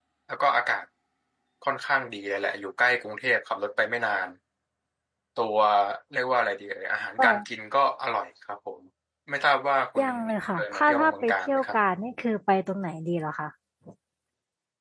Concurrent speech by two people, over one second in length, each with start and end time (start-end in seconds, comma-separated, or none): 10.6-11.8